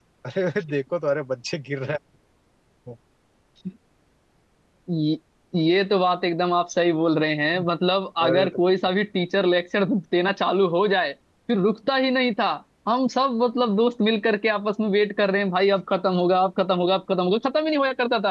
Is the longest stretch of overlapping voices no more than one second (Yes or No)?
Yes